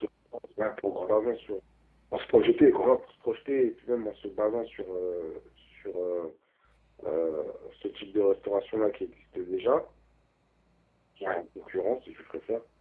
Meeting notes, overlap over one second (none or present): none